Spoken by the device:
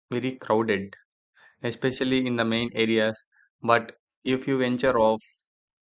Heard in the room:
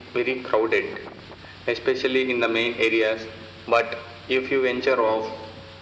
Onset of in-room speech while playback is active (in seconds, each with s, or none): none